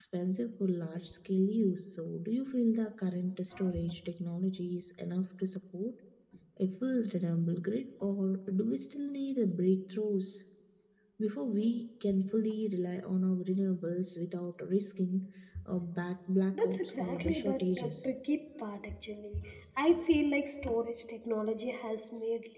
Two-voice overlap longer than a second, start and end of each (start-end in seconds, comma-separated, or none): 16.6-18.1